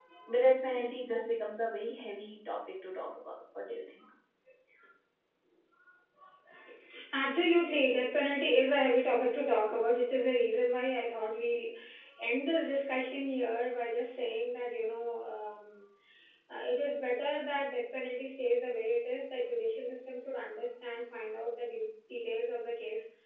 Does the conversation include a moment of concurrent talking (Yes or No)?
No